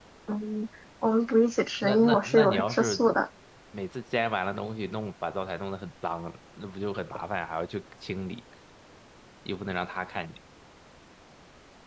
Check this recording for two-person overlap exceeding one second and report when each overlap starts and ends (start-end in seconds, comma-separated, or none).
1.8-3.1